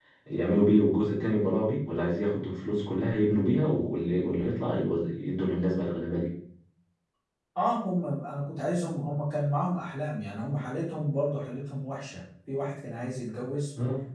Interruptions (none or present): none